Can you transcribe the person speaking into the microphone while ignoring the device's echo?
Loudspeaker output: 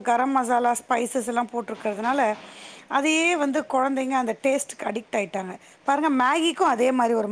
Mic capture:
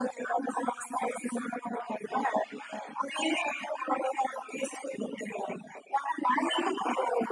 none

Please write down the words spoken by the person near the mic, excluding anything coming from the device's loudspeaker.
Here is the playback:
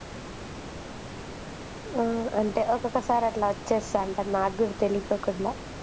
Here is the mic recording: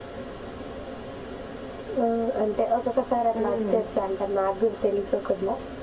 ఉమ్

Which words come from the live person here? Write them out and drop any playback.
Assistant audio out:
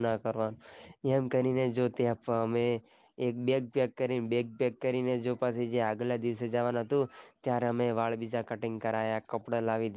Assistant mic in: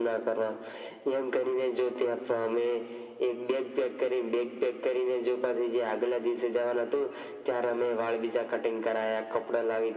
none

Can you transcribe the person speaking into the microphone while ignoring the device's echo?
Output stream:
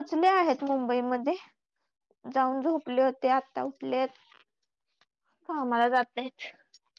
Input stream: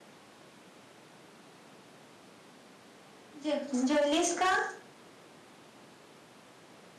जेव जेवलीस का?.

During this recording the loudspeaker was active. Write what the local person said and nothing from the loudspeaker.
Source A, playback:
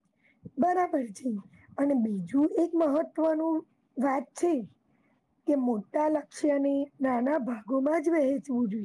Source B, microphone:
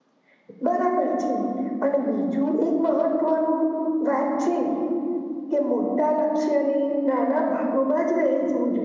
none

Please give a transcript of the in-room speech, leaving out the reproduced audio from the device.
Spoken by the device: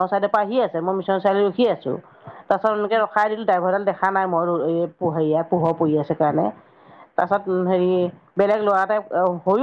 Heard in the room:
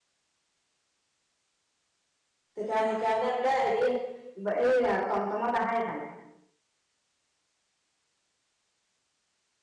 সেইকাৰণে সেইকাৰণে বোলে হেৰি এই টমটমত আহাই ভাল।

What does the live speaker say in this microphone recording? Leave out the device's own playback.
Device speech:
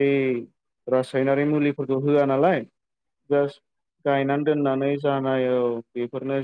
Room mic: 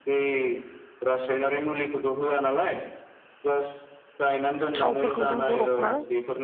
थावफोरखौ जों बर'फ्रा

